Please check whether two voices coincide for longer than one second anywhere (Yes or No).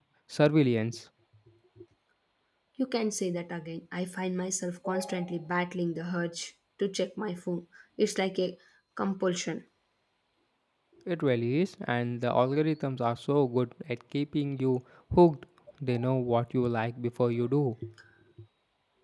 No